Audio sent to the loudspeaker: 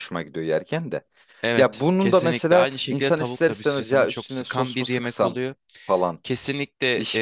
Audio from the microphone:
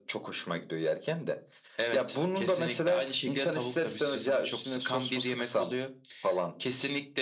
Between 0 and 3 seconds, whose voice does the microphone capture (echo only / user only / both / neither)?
echo only